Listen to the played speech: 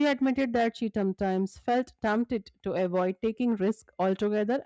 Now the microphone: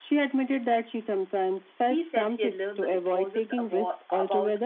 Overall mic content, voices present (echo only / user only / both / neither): both